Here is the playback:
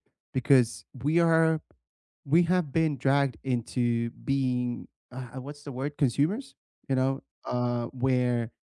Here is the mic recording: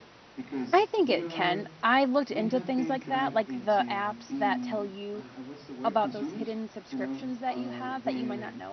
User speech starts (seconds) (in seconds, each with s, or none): 0.7 s